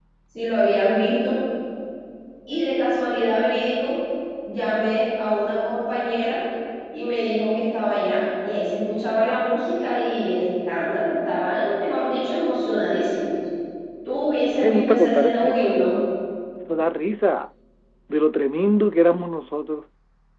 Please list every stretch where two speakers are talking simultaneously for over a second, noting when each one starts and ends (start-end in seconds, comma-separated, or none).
14.5-16.0